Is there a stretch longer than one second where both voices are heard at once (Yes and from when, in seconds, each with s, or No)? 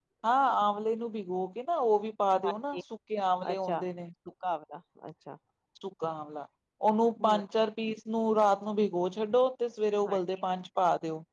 No